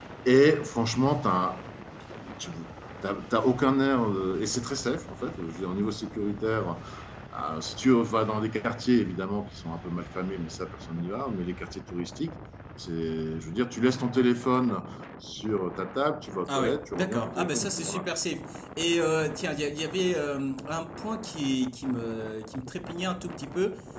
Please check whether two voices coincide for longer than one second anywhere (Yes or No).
Yes